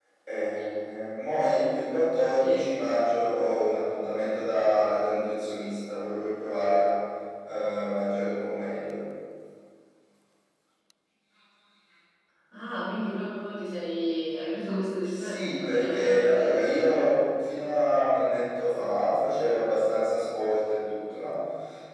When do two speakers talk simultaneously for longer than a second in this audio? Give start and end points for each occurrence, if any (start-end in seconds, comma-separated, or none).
15.0-16.6